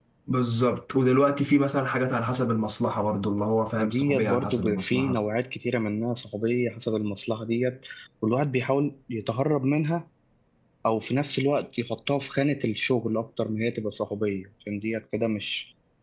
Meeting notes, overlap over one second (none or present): present